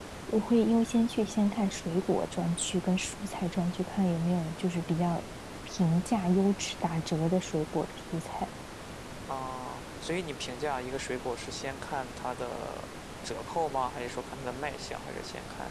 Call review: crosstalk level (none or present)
none